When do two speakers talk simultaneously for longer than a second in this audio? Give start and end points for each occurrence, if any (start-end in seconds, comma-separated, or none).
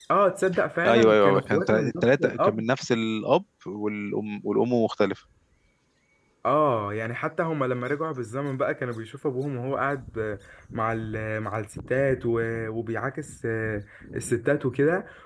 0.8-2.6